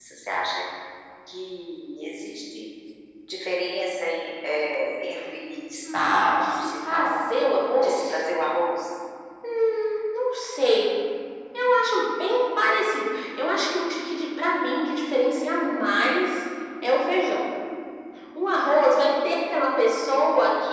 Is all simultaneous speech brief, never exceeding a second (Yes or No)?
No